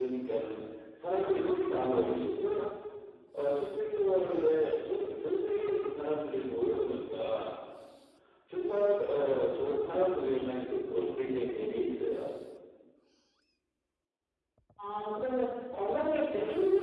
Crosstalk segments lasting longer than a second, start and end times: none

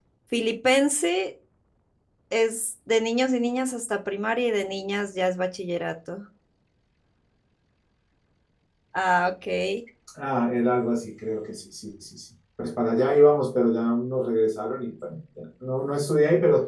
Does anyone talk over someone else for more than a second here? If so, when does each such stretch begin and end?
none

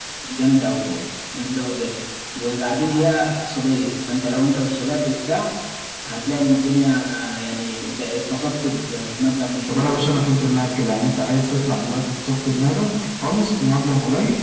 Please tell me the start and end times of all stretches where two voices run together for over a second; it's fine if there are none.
none

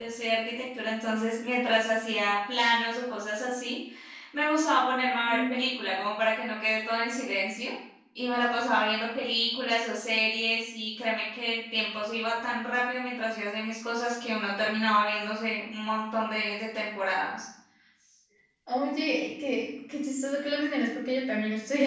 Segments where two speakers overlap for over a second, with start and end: none

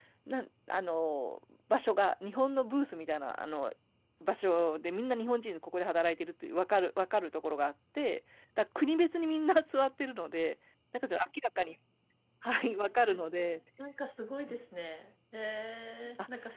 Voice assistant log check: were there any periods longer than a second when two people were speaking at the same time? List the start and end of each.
none

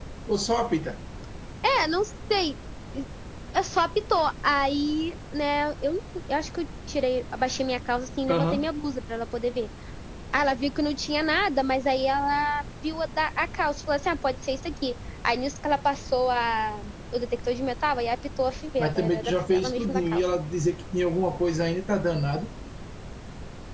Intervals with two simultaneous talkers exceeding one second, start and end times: 18.8-20.2

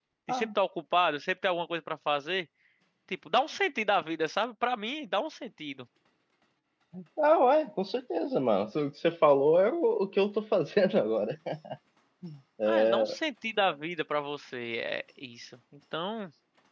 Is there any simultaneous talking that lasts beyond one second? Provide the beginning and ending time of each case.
none

